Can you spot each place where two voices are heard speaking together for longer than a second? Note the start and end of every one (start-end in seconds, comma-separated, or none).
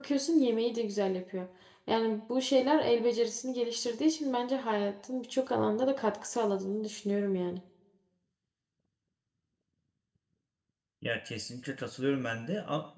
none